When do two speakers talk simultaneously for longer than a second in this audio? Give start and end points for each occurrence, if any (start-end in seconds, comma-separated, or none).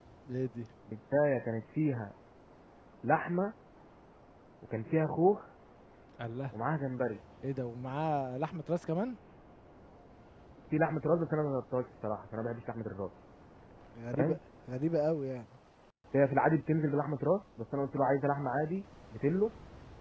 none